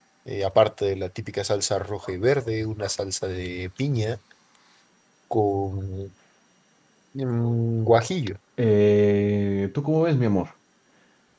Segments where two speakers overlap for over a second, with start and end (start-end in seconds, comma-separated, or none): none